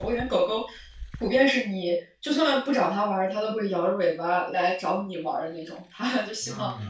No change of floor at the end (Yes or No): Yes